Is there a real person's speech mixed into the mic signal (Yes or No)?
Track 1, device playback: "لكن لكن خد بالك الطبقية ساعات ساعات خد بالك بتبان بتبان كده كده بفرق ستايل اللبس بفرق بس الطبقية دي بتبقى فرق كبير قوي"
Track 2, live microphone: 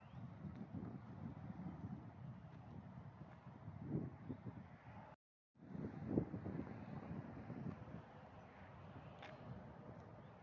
No